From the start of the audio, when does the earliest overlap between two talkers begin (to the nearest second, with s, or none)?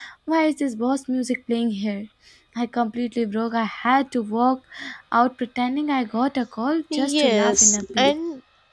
7 s